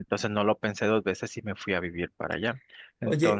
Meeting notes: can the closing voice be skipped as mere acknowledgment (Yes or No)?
No